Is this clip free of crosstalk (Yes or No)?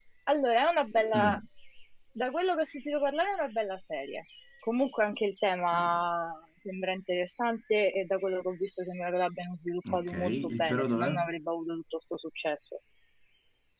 No